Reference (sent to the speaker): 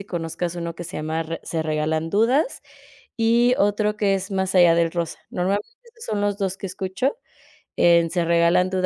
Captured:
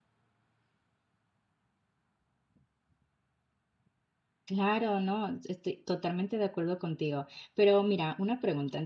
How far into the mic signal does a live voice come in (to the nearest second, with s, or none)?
4 s